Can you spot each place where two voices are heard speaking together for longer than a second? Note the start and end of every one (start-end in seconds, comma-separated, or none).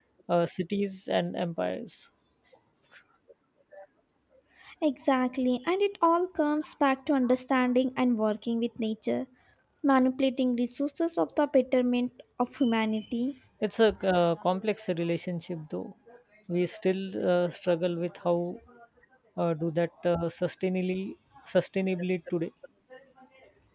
none